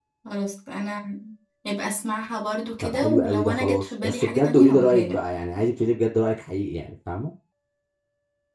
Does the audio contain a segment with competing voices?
Yes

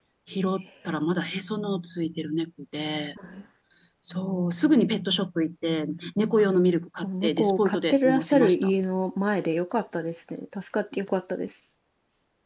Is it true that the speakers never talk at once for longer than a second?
No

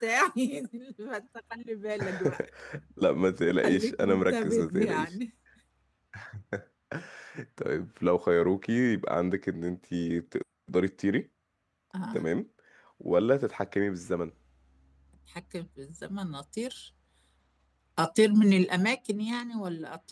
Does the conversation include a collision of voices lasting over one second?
Yes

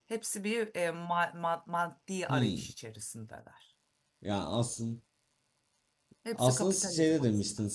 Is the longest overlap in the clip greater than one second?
Yes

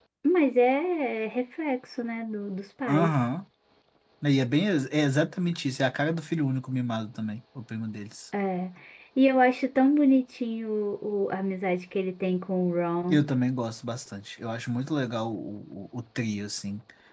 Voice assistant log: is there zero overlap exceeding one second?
Yes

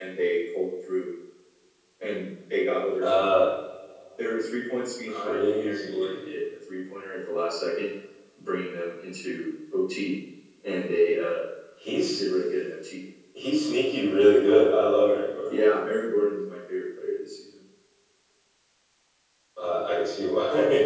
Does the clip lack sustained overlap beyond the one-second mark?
No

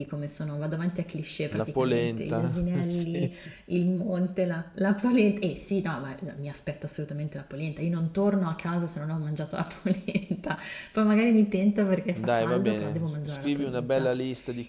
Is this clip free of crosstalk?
No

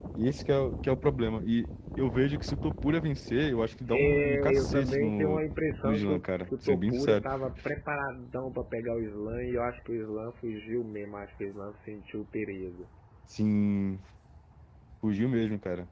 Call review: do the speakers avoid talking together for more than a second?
No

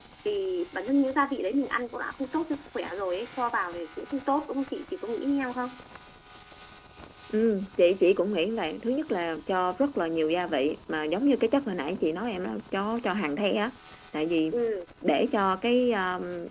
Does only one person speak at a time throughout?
Yes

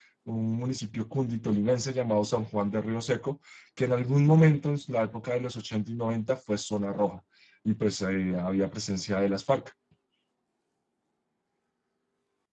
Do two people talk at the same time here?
No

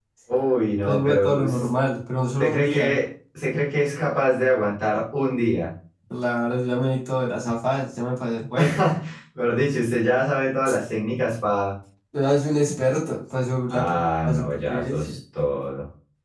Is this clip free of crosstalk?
No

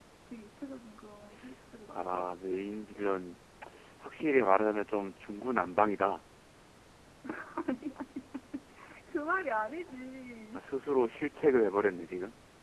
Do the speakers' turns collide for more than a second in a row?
No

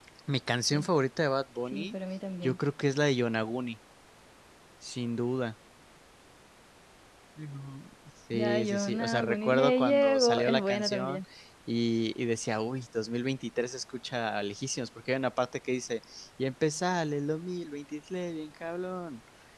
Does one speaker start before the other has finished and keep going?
Yes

